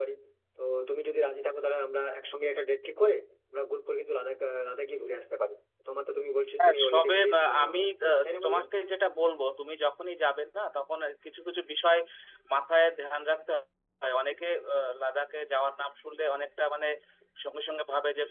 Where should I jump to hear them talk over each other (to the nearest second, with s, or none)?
7 s